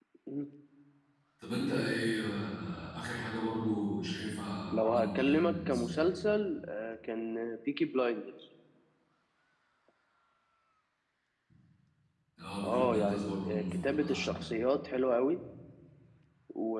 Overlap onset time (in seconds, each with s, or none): 4.7 s